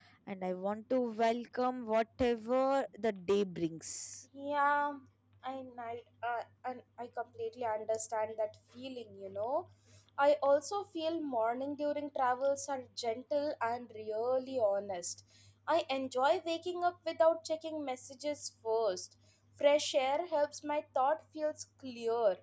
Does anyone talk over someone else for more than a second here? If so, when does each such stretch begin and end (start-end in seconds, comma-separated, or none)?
none